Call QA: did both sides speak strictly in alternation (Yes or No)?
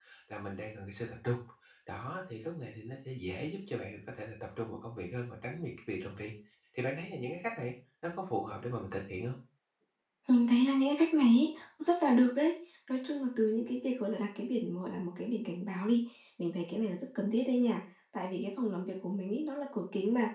Yes